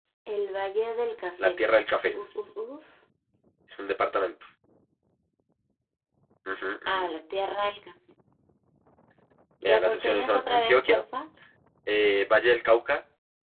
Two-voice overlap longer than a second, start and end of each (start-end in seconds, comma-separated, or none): 9.7-11.0